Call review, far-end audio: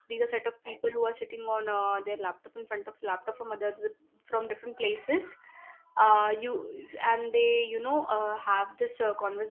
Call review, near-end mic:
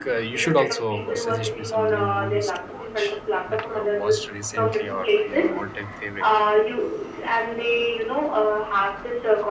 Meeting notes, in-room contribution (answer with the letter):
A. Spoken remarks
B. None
A